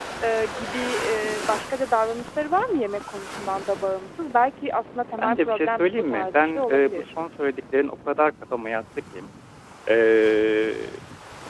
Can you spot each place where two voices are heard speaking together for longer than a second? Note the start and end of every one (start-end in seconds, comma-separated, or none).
5.2-7.1